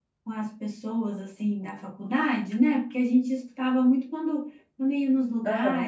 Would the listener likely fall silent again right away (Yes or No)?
Yes